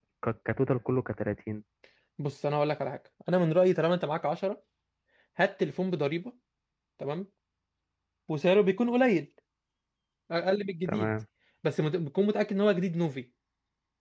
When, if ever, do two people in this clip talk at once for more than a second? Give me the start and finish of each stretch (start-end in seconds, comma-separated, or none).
none